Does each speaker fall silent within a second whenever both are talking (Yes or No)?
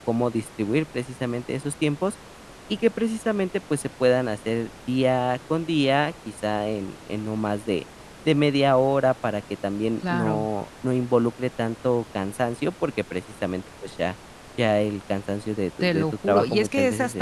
No